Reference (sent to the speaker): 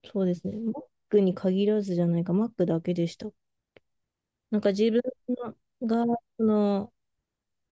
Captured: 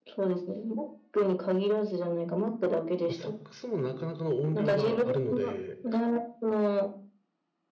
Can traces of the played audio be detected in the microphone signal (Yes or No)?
Yes